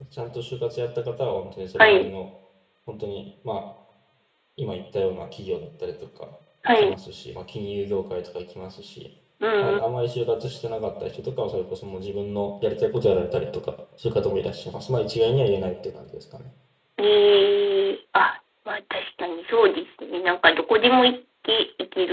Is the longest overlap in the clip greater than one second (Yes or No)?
No